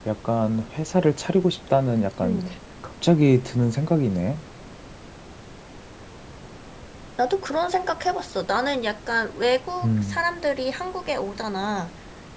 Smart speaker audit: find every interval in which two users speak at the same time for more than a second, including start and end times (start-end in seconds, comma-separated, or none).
none